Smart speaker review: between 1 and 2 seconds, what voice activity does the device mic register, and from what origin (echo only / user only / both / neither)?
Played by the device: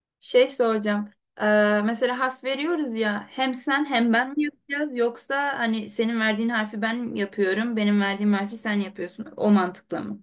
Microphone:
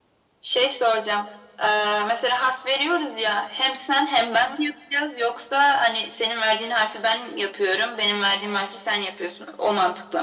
echo only